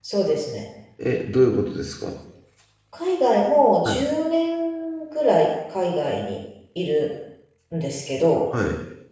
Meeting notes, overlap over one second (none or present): none